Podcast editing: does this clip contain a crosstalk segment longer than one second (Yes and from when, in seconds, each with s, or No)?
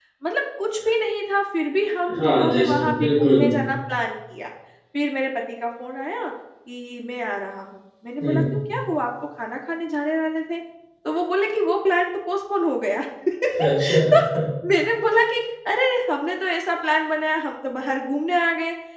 Yes, from 2.2 s